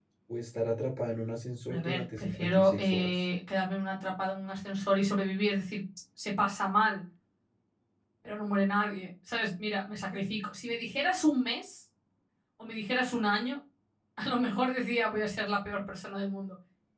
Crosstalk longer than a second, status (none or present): present